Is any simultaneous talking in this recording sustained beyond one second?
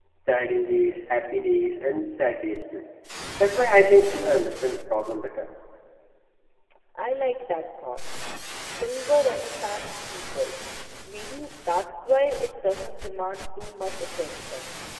No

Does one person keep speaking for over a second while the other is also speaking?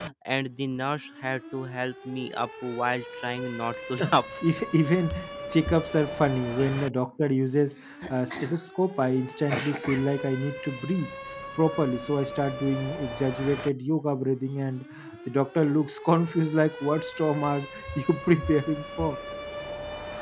No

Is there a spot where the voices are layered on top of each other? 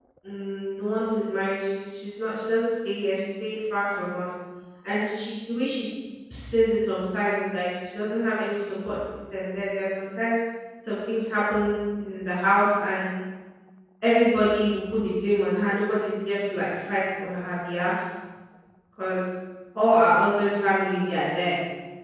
No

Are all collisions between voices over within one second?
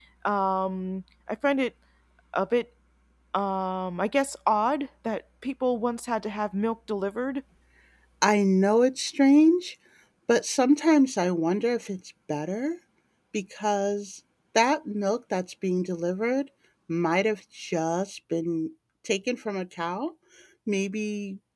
Yes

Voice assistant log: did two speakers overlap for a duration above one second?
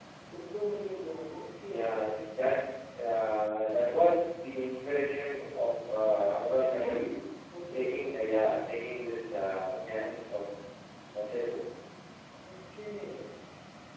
No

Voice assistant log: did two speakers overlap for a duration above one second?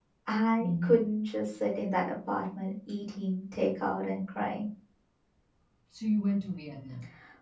No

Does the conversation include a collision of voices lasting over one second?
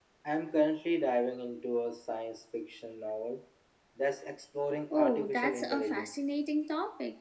Yes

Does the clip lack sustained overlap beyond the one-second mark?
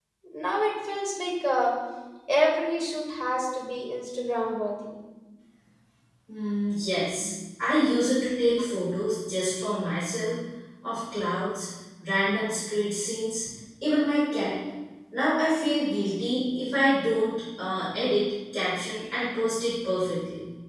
Yes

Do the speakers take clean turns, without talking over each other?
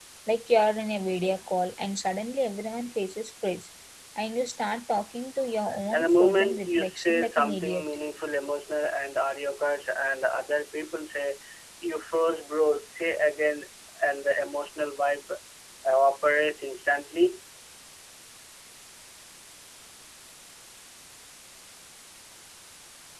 No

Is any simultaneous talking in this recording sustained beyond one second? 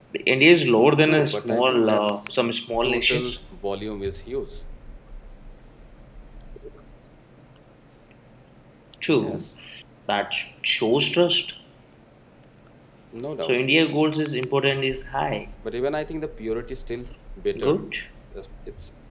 Yes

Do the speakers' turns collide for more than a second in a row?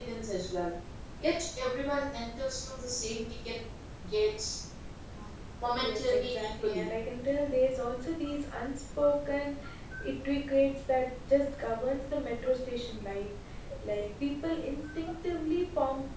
Yes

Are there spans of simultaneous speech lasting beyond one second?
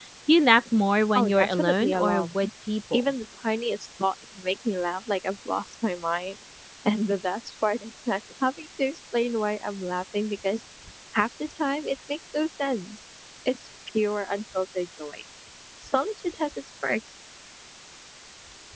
Yes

